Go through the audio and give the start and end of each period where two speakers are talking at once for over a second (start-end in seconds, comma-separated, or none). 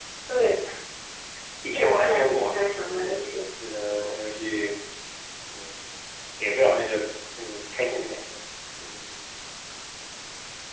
1.7-3.3